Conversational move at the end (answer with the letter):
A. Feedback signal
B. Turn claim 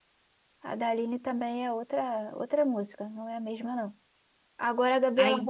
A